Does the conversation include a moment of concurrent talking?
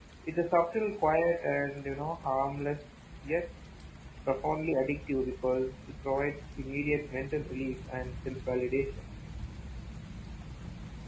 No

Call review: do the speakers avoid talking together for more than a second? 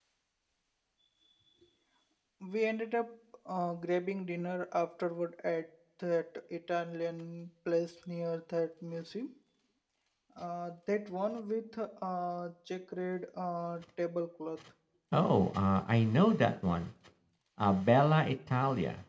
Yes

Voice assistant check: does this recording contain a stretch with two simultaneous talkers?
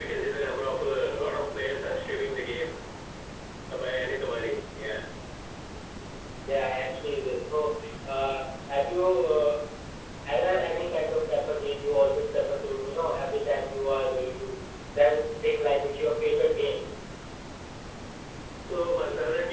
No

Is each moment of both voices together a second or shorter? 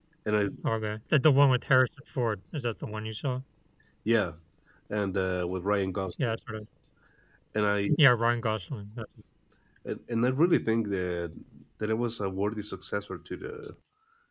Yes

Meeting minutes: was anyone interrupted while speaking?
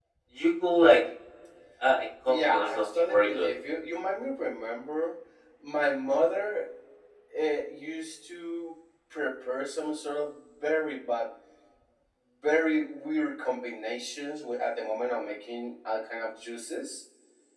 Yes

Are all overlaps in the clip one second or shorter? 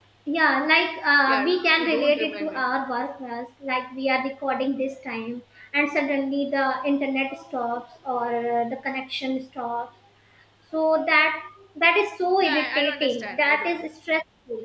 No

